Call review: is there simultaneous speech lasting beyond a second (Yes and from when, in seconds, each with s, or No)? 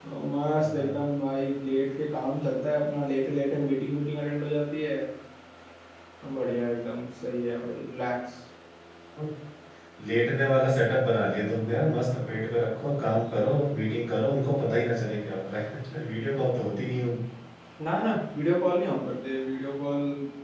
No